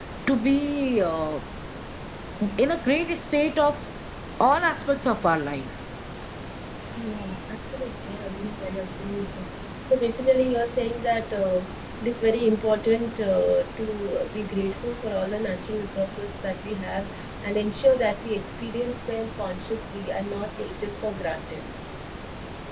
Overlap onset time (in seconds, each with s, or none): none